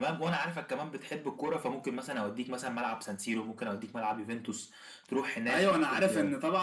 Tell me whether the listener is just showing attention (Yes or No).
No